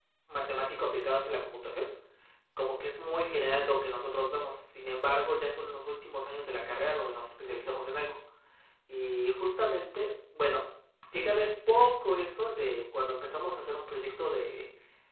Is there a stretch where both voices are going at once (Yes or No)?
No